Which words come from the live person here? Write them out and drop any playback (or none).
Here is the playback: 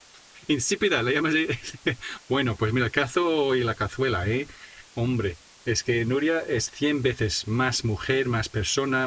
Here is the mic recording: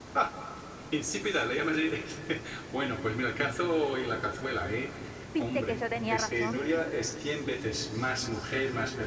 ¿Viste que yo tenía razón?